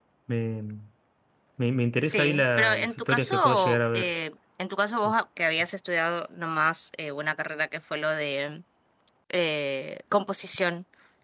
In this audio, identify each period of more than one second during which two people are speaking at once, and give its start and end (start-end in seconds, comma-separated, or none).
2.0-4.1